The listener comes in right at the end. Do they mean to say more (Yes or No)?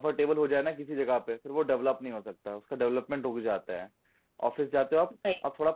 No